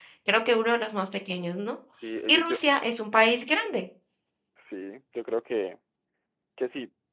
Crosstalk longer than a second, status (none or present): none